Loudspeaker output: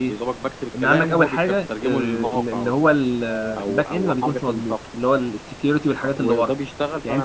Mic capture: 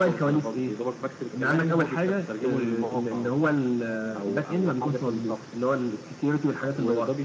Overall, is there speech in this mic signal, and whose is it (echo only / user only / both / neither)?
echo only